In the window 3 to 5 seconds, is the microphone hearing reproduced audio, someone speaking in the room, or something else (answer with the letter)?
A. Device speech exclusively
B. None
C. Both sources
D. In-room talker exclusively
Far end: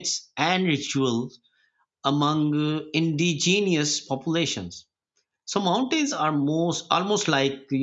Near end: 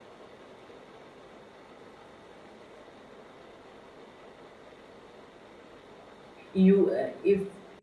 B